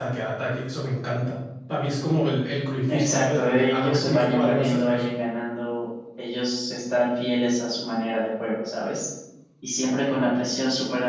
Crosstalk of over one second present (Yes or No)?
Yes